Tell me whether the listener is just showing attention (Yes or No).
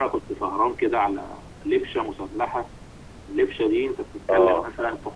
Yes